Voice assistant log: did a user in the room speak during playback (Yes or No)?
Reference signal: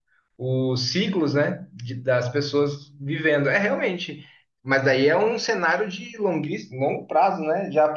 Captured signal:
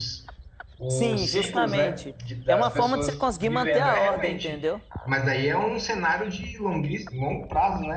Yes